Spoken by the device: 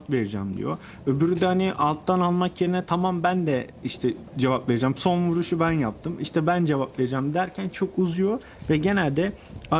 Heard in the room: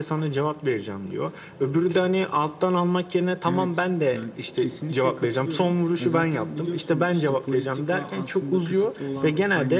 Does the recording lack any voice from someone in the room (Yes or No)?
No